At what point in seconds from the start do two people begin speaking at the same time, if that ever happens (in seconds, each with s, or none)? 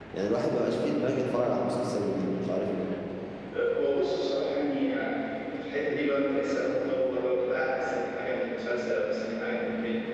none